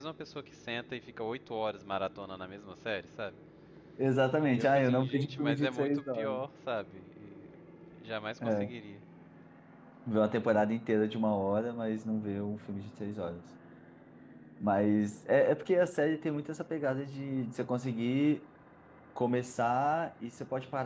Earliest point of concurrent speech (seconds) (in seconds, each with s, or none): 4.5 s